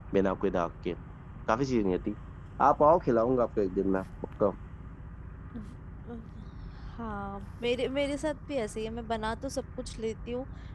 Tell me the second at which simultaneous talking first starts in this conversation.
none

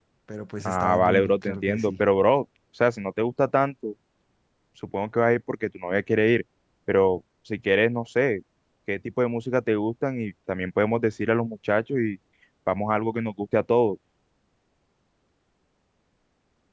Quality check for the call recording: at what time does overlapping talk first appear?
1 s

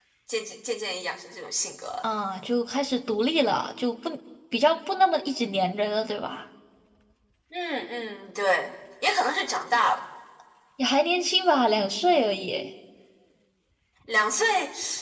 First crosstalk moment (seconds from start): none

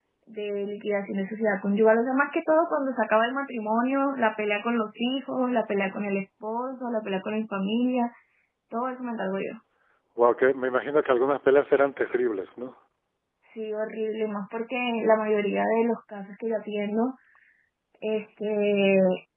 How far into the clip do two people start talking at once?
none

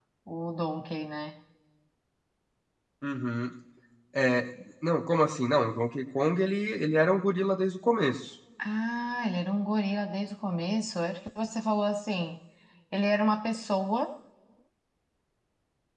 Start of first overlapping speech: none

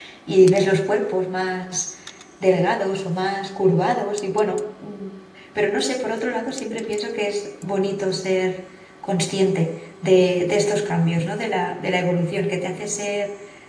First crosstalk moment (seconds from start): none

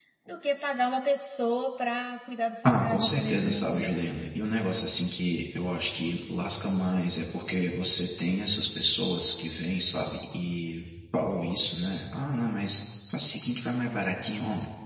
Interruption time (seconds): 3 s

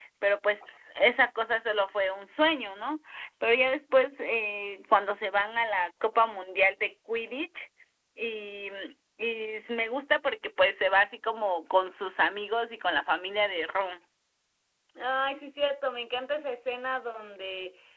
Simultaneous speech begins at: none

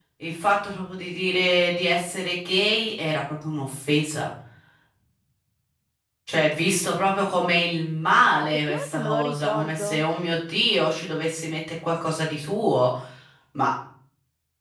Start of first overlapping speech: 9 s

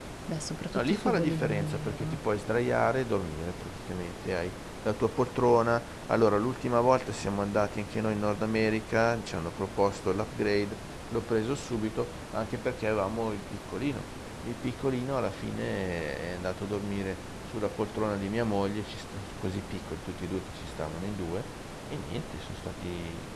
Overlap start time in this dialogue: 1 s

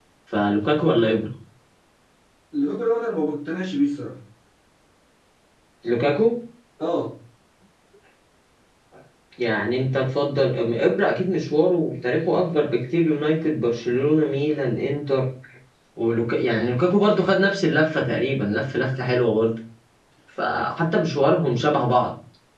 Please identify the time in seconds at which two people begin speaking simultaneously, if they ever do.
none

